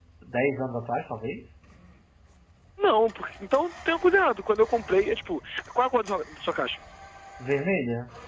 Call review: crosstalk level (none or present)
none